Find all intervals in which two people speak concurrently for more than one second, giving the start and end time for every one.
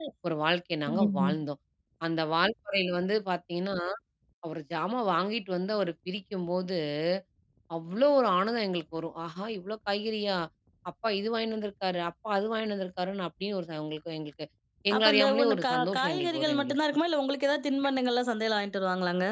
15.0-16.8

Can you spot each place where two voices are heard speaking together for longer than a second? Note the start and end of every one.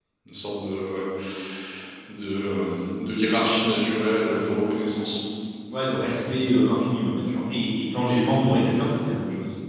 none

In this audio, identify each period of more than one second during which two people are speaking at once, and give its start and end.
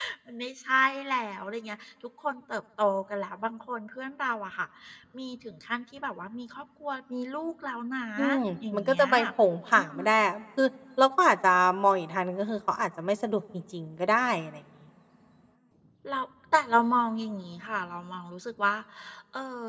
none

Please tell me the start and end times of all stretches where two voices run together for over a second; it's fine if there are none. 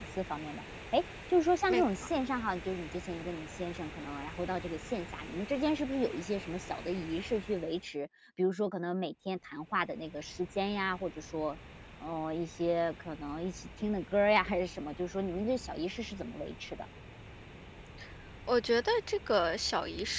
none

